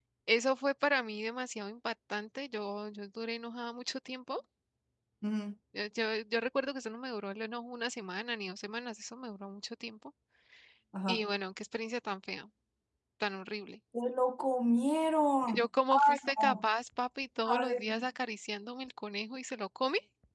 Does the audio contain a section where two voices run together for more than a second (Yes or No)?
Yes